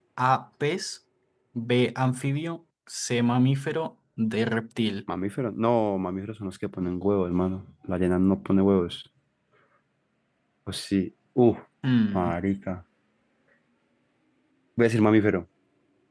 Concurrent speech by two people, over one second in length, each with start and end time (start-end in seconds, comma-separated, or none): none